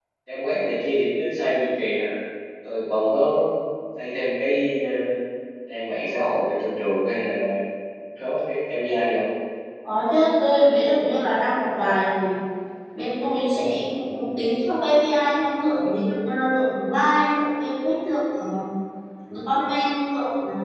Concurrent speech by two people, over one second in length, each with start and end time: none

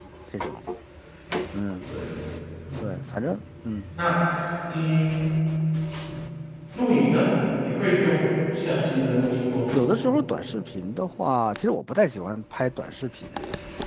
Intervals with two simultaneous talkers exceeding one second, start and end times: none

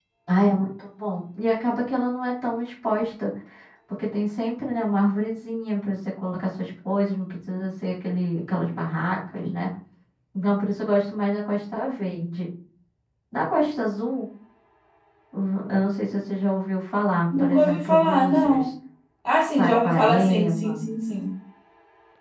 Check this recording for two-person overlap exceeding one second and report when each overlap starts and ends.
17.4-18.7, 19.6-20.8

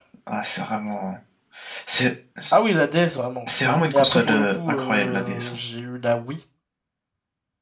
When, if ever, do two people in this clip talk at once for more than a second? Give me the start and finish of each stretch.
3.9-5.6

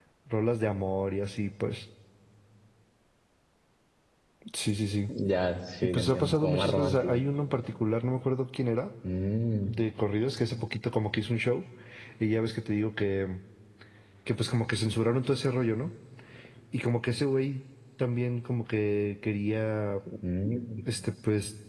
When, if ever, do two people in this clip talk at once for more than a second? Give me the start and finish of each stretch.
5.8-7.2

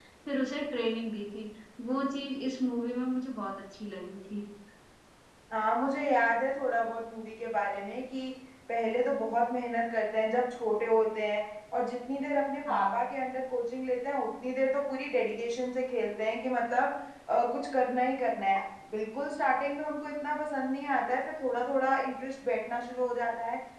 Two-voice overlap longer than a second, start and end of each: none

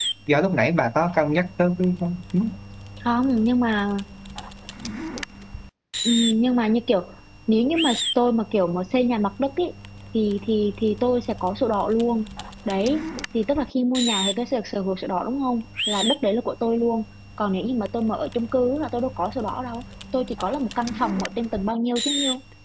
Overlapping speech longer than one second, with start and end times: none

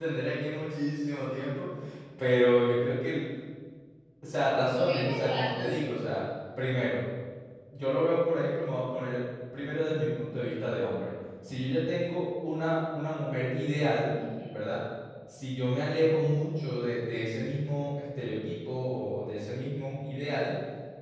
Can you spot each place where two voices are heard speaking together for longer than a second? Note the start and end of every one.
4.7-5.9

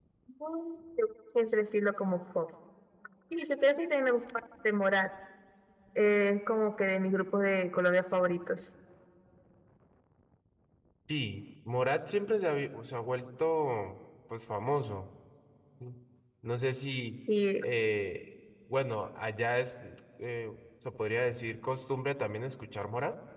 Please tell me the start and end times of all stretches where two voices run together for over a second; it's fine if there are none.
none

